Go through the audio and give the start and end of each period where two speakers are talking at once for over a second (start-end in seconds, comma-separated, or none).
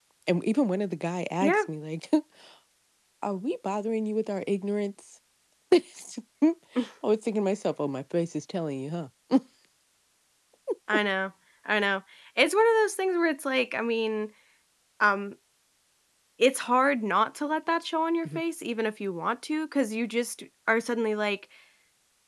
none